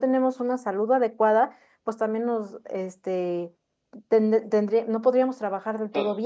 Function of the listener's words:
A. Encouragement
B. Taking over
B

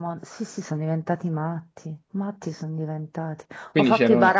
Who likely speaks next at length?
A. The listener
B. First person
B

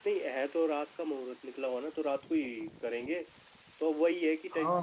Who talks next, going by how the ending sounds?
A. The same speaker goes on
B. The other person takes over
A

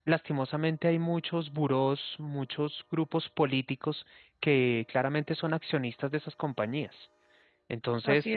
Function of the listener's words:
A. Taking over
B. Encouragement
B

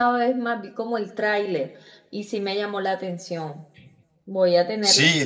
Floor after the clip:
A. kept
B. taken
B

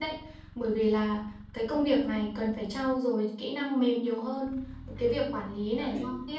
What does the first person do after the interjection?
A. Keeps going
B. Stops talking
A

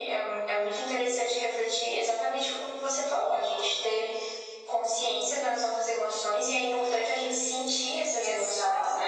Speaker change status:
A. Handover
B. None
A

